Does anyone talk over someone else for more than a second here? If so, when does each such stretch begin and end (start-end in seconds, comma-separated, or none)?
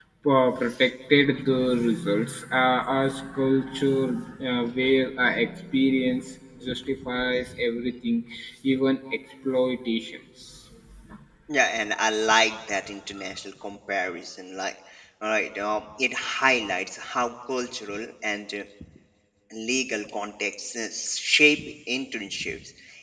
none